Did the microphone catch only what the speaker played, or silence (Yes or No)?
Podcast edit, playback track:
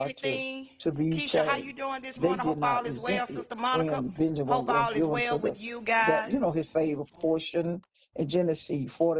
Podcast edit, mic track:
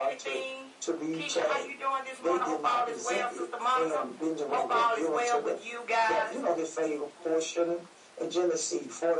Yes